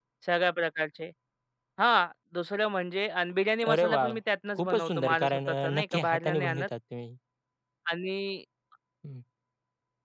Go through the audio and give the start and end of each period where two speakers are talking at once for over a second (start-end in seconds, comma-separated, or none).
4.6-6.7